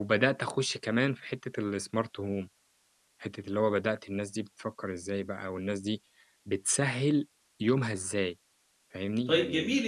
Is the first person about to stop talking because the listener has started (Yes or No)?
Yes